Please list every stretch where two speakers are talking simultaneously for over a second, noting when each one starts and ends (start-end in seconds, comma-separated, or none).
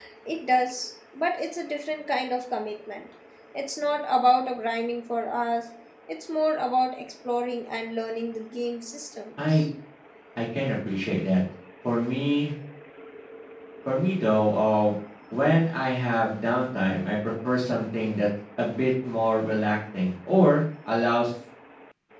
none